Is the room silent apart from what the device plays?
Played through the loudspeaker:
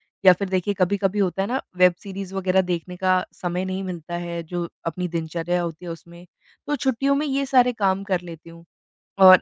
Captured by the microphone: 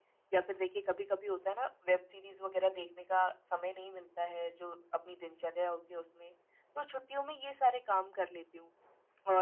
Yes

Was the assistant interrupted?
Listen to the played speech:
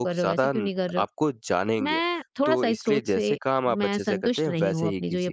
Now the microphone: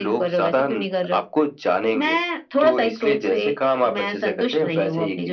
No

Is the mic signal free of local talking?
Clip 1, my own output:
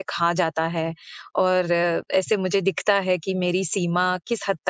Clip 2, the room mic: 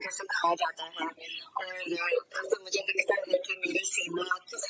Yes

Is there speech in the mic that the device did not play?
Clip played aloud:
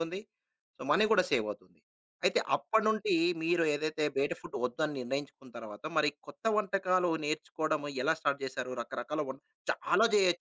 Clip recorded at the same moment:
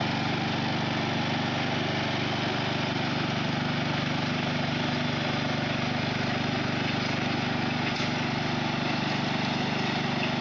No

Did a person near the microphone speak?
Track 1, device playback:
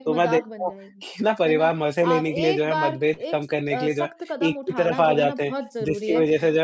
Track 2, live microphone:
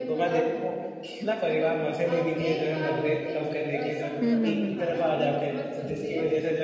Yes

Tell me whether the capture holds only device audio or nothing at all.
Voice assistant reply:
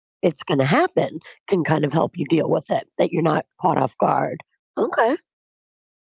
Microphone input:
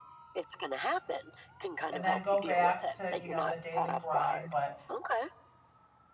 No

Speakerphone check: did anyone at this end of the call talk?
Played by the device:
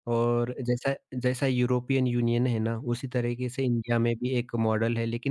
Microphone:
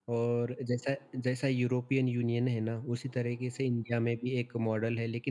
No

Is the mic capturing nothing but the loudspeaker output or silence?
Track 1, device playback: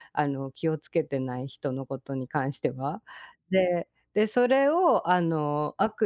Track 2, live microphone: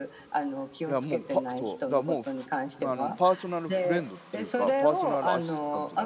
No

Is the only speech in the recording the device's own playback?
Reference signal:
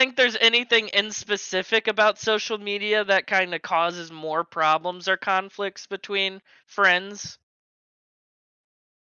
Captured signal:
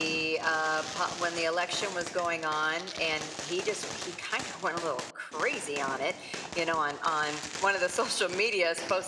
No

